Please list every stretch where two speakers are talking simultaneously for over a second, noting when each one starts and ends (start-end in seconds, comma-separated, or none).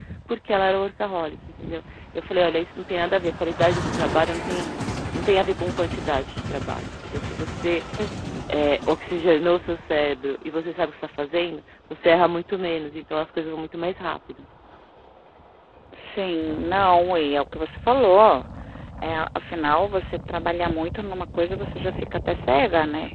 none